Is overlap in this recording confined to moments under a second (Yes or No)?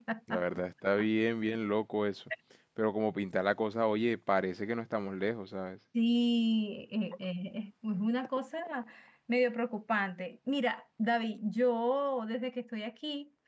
Yes